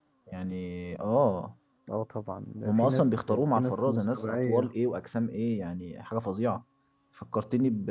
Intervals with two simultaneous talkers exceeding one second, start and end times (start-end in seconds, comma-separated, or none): 2.6-4.7